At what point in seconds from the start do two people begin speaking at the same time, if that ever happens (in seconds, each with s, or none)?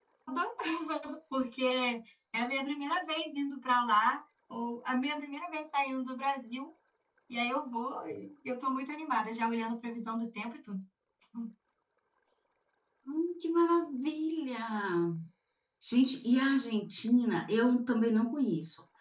none